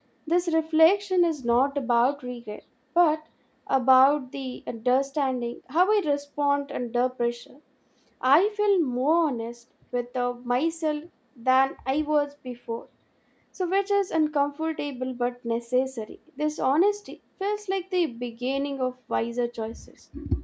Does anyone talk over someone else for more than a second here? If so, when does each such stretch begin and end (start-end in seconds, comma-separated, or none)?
none